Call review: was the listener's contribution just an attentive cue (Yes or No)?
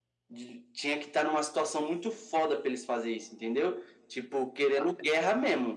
Yes